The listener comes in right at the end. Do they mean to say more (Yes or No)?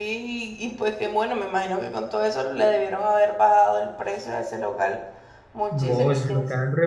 Yes